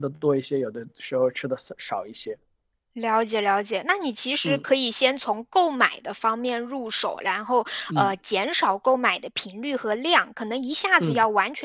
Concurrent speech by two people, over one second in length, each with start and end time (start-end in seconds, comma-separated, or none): none